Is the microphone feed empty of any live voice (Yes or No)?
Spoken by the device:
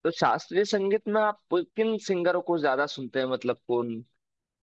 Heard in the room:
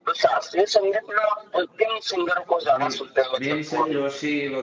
No